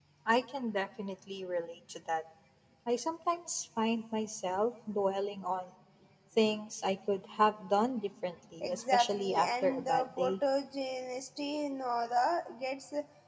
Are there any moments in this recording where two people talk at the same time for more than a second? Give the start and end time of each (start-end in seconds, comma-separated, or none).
8.6-10.3